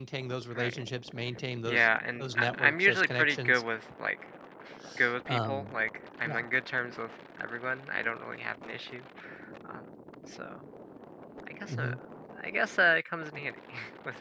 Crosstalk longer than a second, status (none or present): present